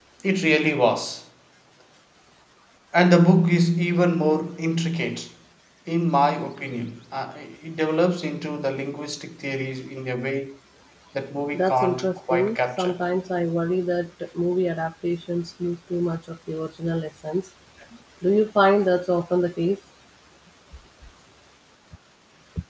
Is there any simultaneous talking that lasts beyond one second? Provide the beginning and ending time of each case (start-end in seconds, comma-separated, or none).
11.5-13.0